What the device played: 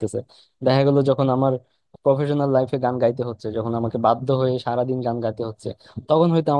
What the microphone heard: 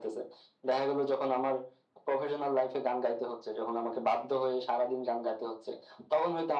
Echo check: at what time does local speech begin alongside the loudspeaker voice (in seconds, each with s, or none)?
none